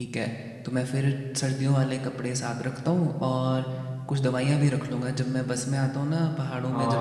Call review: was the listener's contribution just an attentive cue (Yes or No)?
No